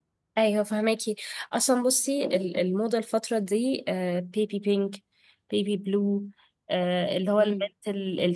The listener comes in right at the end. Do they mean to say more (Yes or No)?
No